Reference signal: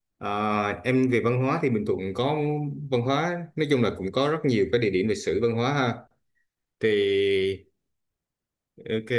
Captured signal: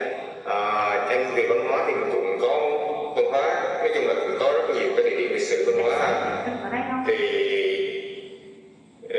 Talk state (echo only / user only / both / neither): both